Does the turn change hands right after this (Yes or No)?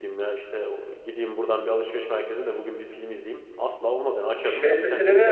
Yes